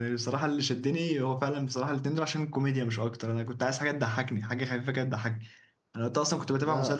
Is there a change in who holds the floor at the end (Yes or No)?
No